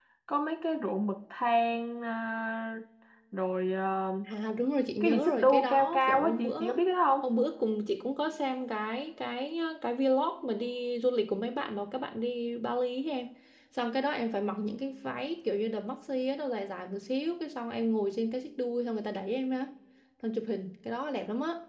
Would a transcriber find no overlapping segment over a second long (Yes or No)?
No